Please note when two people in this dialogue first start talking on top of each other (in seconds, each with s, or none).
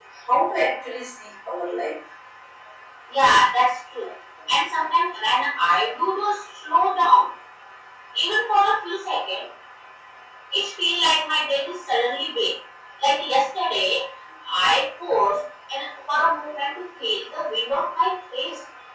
none